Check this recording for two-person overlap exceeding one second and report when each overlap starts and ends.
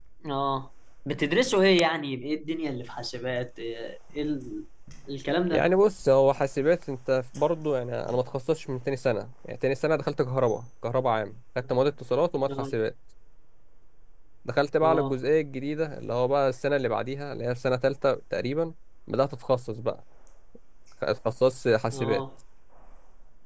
none

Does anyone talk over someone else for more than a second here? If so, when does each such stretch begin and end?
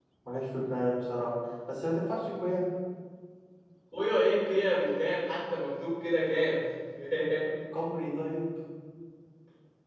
none

